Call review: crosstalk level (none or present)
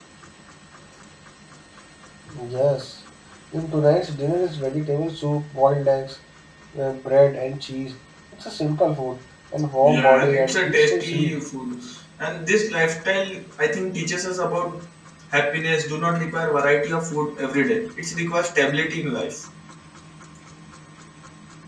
present